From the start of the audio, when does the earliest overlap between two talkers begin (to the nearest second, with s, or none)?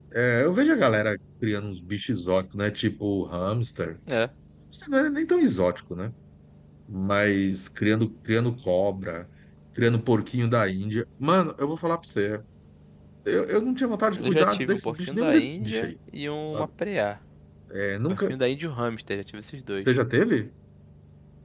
14 s